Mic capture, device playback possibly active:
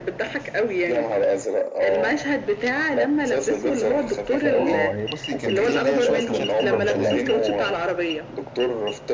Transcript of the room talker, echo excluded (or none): اه اه هي بصي كان فيها ليها شويه مشاهد حلوه مش هننكر